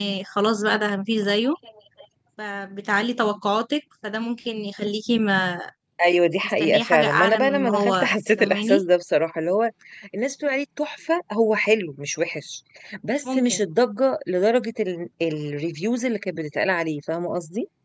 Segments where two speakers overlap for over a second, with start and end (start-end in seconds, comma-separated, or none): 6.6-8.8